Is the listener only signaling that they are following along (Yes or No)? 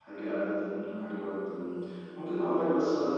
Yes